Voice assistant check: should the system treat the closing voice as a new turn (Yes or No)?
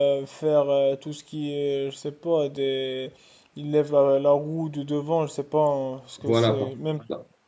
Yes